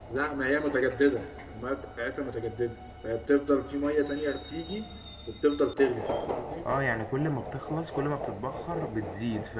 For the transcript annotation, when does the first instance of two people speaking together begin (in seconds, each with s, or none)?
none